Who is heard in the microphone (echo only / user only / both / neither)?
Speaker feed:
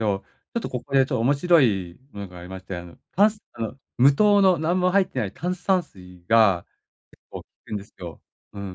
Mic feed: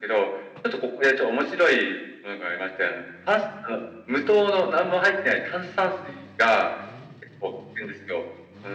echo only